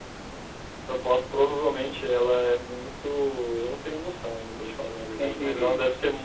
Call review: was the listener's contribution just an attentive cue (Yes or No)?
Yes